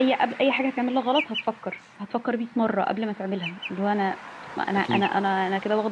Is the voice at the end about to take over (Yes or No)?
No